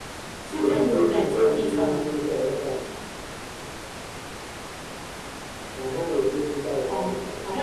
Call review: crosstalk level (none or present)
present